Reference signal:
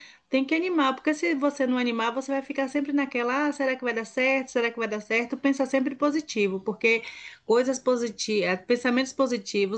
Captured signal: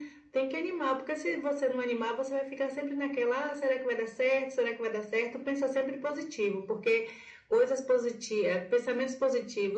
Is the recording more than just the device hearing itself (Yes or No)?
No